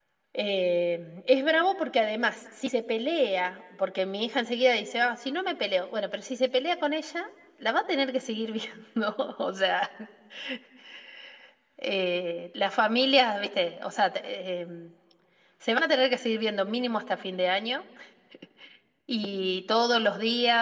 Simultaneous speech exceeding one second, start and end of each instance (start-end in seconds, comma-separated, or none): none